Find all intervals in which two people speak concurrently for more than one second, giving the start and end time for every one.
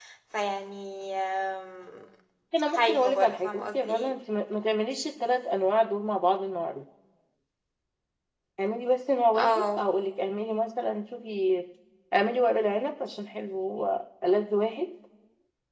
2.7-4.1

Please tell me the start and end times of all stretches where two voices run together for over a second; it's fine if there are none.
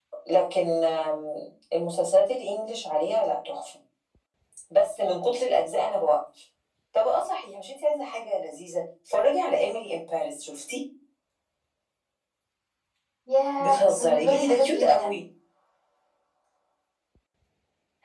13.6-15.2

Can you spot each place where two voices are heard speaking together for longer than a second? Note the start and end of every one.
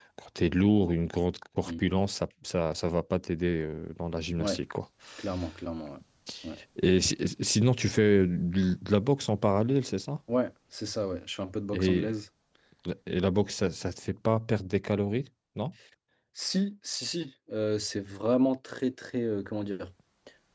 none

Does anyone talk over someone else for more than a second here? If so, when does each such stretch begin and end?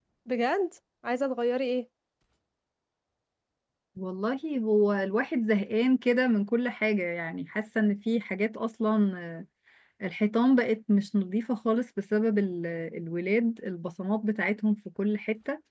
none

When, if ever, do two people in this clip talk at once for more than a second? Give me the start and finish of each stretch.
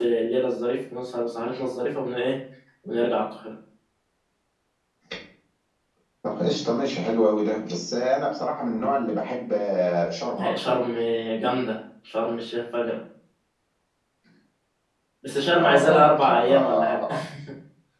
15.5-17.0

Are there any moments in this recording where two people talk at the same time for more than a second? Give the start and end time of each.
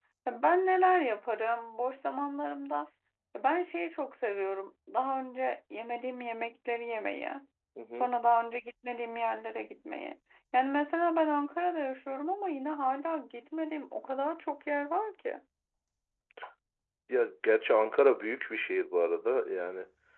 none

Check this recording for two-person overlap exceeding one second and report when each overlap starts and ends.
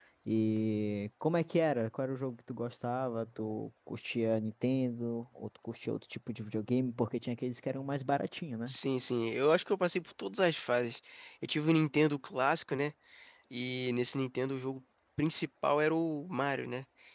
none

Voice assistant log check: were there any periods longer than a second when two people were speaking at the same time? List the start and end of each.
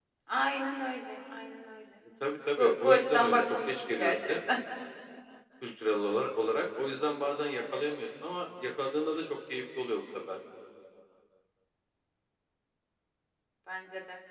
2.6-4.3

